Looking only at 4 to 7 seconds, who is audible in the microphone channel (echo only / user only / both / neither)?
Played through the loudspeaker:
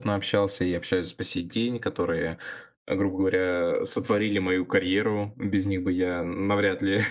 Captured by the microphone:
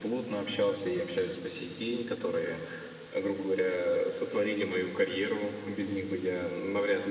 echo only